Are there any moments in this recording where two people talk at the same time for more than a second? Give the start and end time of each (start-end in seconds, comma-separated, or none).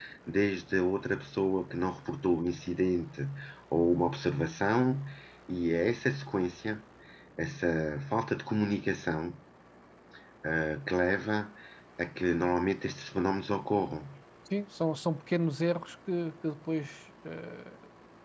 none